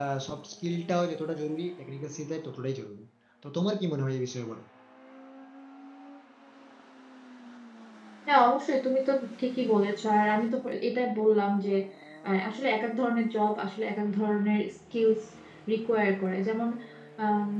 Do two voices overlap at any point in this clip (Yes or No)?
No